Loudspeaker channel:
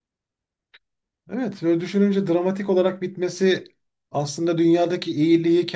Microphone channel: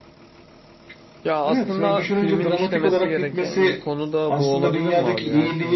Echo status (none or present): present